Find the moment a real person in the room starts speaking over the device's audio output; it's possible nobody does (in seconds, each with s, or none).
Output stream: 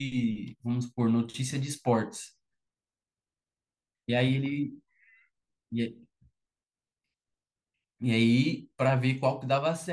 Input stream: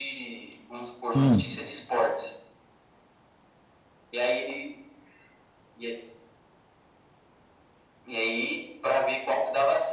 1.1 s